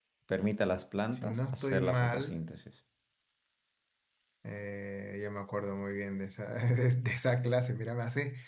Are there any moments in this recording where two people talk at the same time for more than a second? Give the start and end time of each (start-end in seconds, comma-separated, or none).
1.1-2.4